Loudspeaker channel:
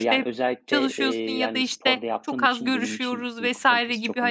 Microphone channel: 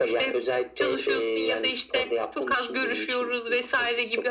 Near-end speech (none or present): none